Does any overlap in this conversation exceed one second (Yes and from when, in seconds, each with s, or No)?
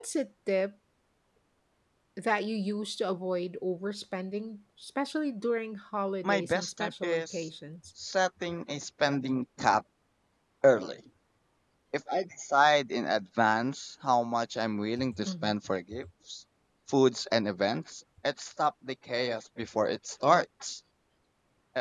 Yes, from 6.2 s